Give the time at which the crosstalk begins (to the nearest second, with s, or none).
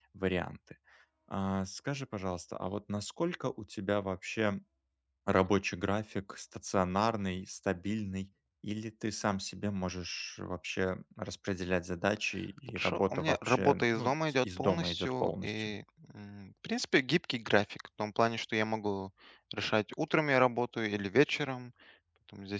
13 s